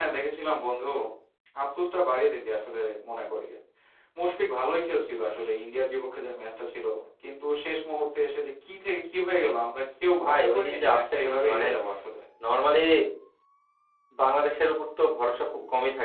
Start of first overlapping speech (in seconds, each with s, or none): 10.1 s